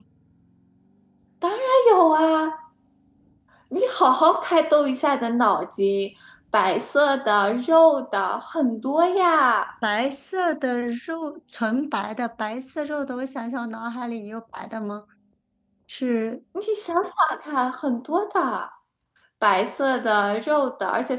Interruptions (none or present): none